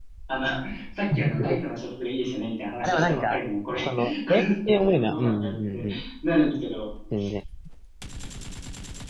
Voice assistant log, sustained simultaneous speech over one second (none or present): present